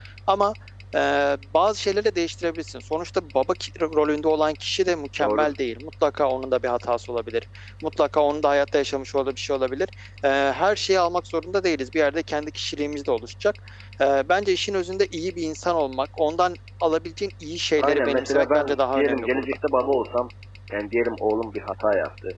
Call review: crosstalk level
present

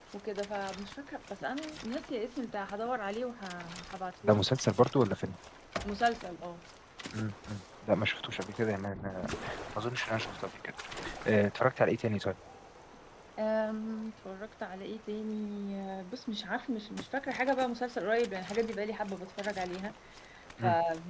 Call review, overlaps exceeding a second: none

